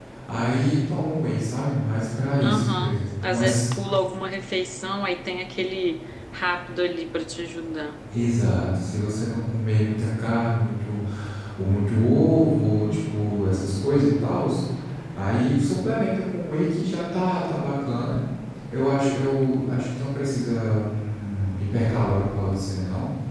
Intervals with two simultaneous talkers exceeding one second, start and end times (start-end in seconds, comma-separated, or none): 2.4-3.6